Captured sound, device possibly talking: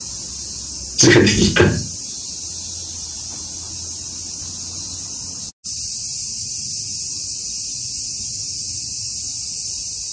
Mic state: user only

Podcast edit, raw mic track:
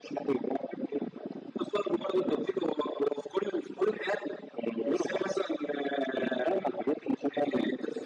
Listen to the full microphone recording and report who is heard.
echo only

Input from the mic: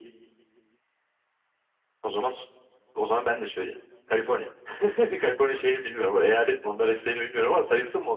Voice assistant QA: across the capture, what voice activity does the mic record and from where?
echo only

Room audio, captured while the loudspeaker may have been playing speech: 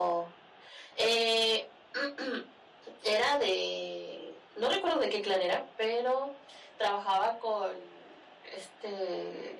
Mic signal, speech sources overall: echo only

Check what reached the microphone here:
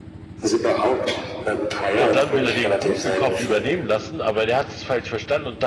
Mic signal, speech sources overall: both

